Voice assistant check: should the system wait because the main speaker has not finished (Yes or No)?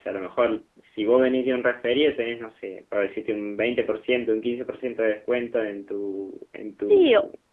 No